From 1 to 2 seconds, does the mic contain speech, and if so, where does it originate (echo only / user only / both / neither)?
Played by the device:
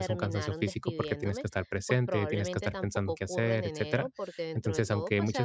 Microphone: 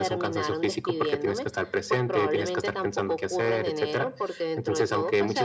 echo only